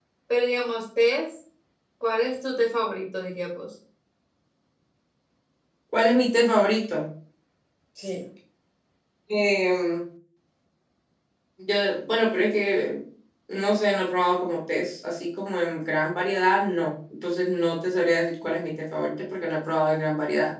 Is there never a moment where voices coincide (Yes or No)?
Yes